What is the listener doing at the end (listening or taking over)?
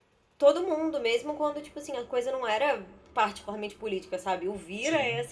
listening